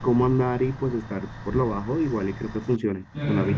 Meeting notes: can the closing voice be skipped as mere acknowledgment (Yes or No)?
No